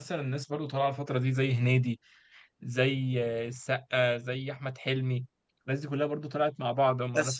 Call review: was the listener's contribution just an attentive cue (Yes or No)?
No